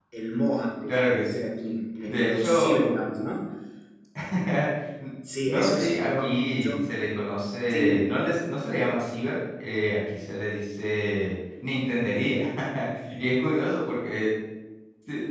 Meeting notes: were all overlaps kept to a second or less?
No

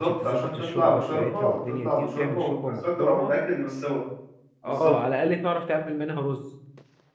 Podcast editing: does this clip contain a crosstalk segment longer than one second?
Yes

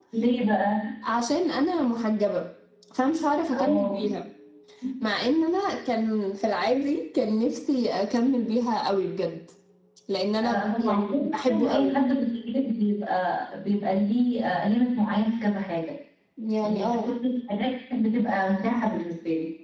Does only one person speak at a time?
No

